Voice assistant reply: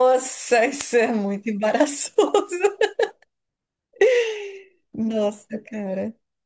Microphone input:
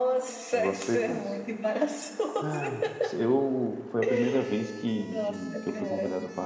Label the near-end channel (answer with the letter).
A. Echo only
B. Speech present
B